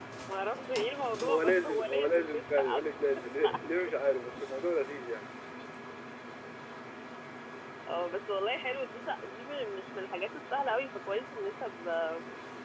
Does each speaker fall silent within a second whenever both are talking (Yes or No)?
No